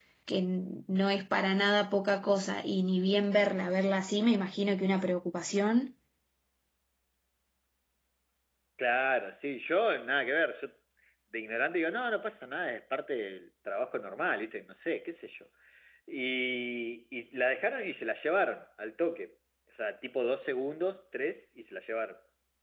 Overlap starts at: none

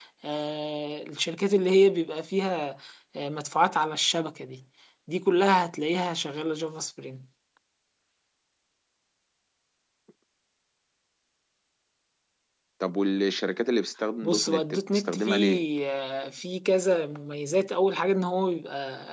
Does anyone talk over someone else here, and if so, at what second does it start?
14 s

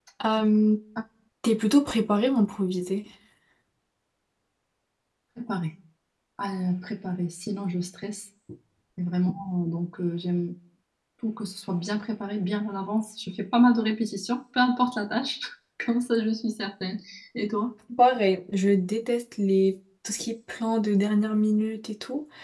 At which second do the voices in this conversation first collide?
none

